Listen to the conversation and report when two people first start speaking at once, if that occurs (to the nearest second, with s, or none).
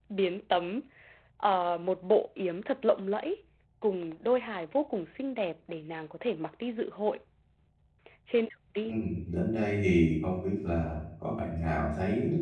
none